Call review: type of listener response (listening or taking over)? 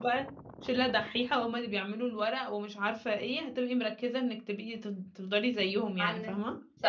taking over